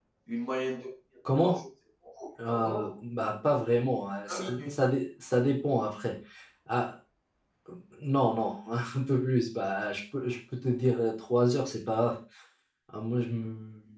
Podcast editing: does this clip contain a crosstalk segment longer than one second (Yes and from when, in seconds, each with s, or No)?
No